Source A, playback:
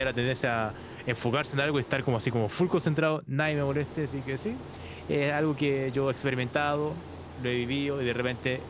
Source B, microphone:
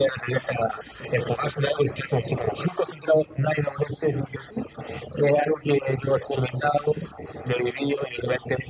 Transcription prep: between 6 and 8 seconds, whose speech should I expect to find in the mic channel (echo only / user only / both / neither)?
echo only